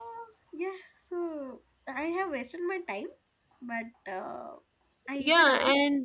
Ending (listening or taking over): taking over